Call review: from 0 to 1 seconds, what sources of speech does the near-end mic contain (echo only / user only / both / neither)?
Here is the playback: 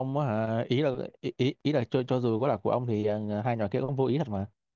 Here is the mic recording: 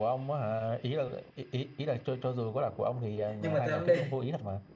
echo only